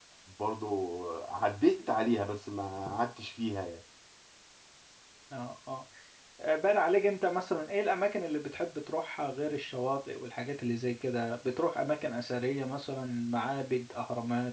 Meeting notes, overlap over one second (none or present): none